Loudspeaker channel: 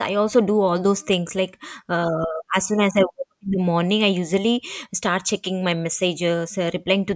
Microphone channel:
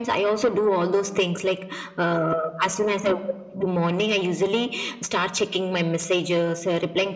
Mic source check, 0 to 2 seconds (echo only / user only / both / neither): echo only